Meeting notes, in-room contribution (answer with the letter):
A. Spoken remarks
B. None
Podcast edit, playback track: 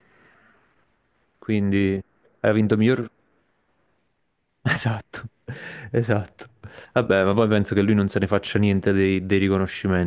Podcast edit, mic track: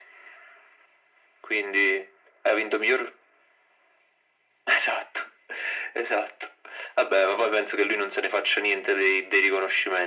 B